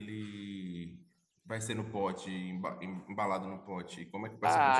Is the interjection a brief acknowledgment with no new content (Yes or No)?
No